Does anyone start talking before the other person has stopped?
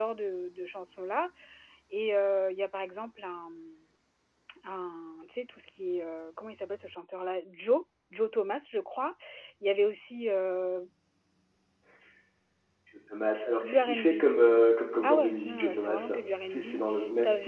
Yes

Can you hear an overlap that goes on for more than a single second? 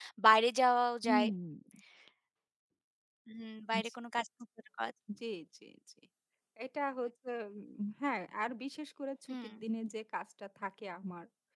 No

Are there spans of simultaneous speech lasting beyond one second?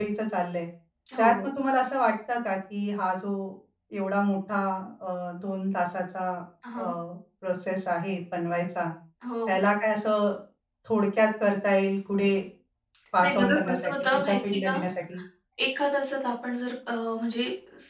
Yes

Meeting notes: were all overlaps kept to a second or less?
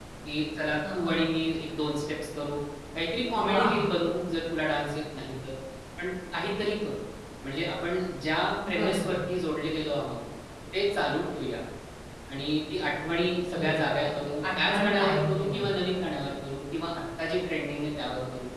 No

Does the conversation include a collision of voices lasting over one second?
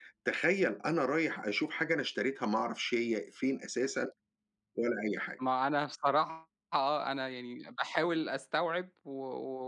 No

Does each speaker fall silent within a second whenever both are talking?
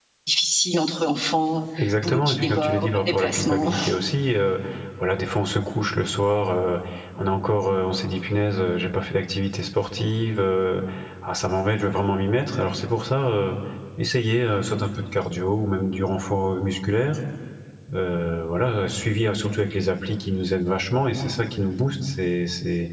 No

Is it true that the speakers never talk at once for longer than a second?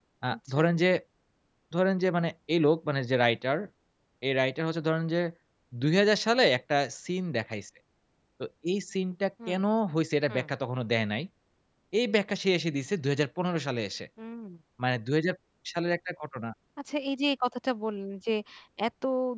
Yes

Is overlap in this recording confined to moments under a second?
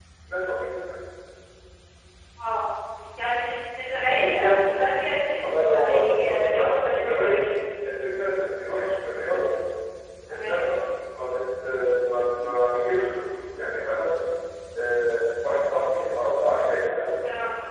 No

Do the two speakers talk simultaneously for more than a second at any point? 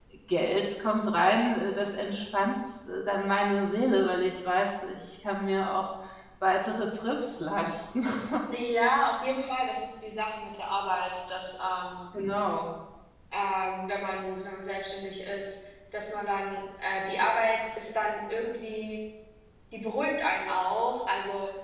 No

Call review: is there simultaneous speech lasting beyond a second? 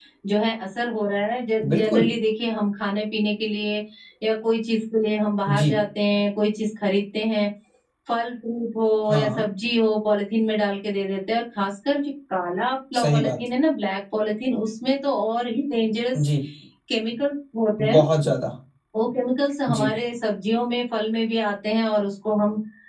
No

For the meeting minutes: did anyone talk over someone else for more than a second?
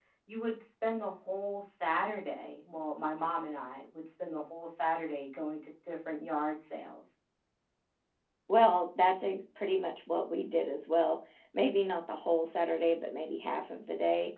No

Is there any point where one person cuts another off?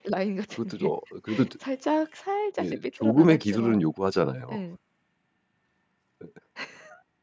Yes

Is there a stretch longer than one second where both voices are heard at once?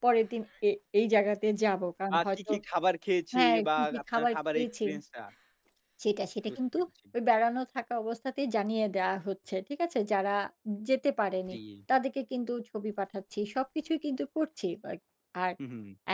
Yes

